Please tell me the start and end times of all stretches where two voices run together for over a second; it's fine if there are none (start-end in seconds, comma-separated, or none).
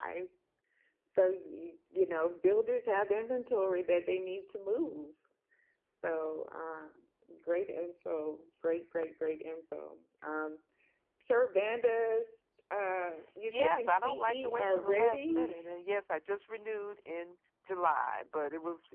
13.5-15.6